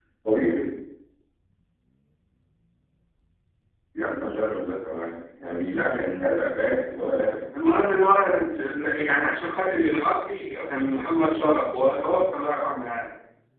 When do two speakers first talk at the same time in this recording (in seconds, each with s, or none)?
none